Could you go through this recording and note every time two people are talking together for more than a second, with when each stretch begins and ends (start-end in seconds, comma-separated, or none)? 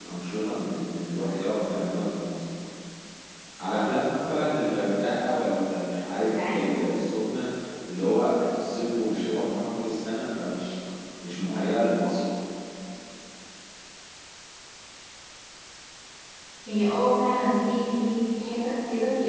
none